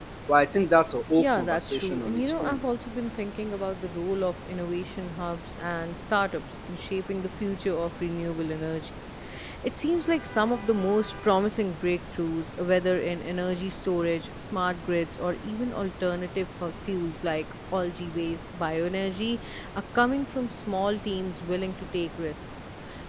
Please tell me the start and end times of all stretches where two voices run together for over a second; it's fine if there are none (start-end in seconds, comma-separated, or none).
1.2-2.6